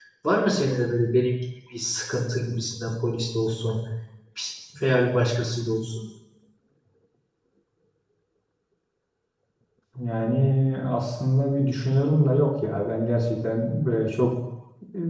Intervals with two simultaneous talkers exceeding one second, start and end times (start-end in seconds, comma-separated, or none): none